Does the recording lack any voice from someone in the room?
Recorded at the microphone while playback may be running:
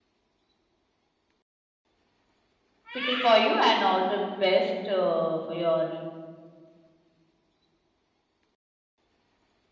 No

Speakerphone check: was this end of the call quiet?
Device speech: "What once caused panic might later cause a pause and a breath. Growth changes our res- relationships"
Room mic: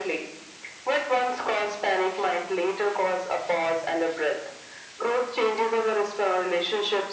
Yes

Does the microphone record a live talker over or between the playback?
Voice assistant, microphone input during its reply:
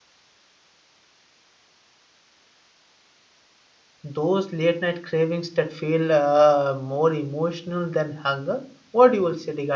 Yes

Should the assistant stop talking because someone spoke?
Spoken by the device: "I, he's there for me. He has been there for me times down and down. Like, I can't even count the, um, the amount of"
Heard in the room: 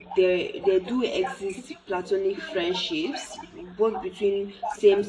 Yes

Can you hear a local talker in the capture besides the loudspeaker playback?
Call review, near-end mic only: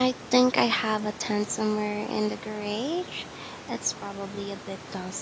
Yes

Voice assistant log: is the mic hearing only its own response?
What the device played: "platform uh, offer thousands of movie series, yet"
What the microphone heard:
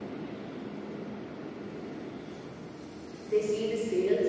No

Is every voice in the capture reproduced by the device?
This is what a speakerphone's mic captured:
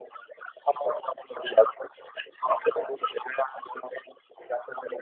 Yes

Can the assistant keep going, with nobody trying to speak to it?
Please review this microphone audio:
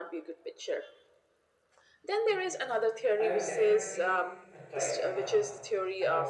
No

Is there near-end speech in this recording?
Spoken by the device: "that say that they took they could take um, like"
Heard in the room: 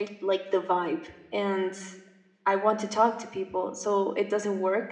Yes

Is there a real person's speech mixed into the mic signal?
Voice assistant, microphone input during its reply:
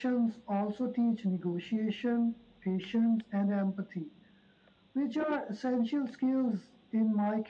No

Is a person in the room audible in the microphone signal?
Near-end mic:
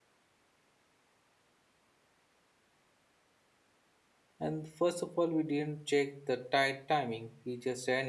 Yes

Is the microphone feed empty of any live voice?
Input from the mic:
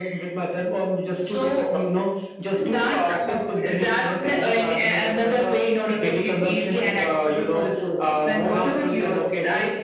Yes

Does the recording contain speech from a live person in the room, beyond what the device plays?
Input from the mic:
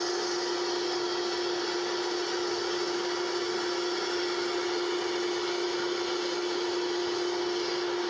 No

